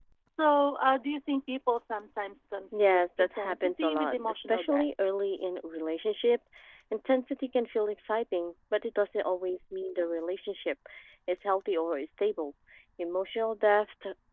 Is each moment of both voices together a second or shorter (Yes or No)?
No